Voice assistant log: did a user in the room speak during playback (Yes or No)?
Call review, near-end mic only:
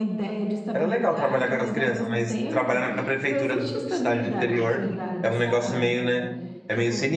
Yes